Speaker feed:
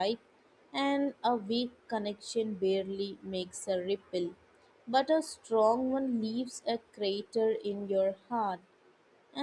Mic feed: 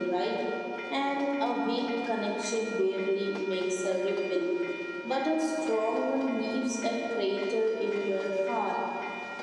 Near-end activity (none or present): none